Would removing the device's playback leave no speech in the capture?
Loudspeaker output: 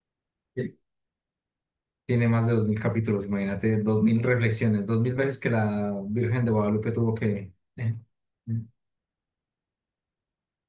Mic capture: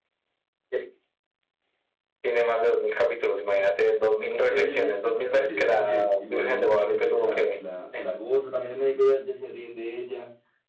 No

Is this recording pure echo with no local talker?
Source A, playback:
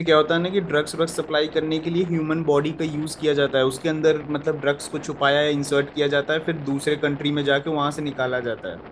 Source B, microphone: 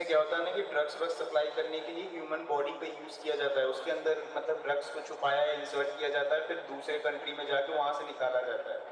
Yes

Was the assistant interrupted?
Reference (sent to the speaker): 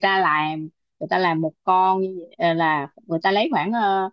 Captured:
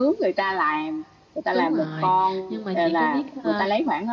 Yes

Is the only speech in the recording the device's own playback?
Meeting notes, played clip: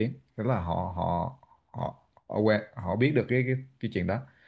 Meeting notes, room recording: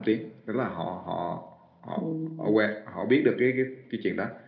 No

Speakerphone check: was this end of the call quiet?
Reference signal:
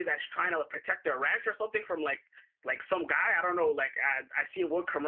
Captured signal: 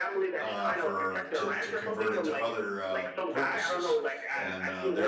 No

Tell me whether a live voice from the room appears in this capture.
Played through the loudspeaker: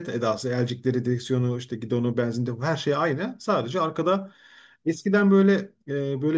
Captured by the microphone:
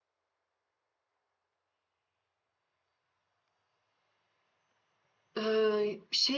Yes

